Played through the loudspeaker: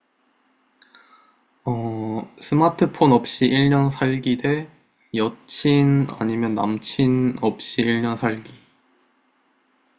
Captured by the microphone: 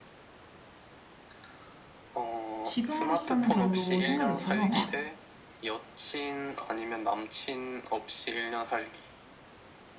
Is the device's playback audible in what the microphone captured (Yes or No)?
Yes